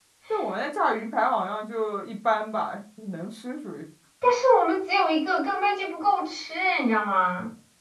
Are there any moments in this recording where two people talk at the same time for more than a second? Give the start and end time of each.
none

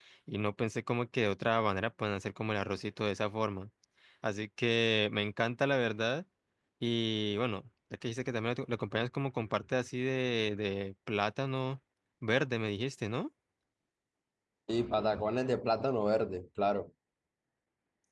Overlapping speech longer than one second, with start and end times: none

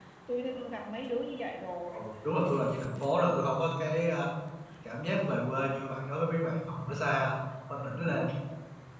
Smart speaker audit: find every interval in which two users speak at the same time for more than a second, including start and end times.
none

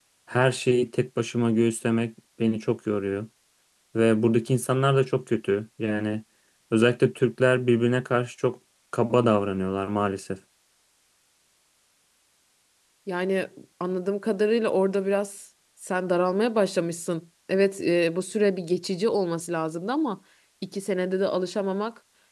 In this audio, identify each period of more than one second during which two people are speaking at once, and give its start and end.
none

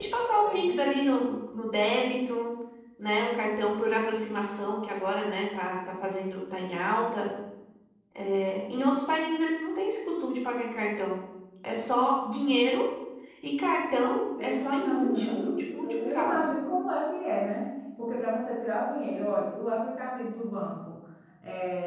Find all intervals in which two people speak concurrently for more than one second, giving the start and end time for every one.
14.4-16.5

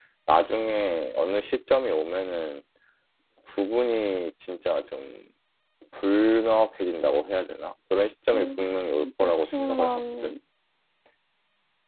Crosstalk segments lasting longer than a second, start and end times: 8.3-10.4

